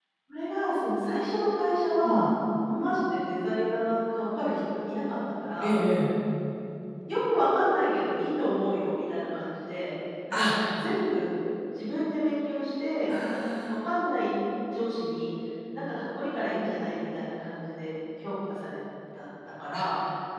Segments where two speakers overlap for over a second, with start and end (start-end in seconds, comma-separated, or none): none